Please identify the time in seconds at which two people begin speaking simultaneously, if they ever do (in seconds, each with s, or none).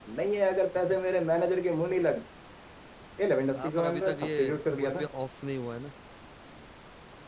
3.6 s